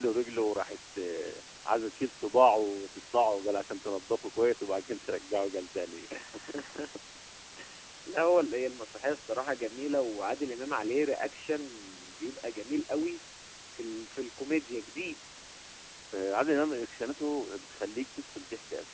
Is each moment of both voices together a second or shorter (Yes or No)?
Yes